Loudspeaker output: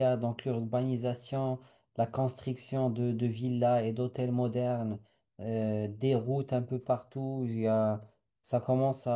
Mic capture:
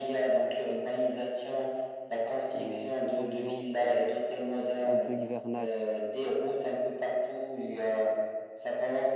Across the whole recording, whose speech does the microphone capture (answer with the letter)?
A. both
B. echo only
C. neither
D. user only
A